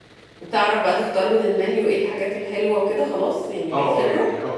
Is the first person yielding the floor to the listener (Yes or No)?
Yes